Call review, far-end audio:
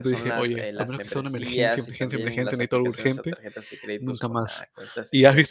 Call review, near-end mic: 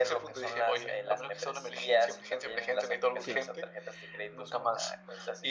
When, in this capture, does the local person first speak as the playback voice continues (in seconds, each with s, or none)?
3.2 s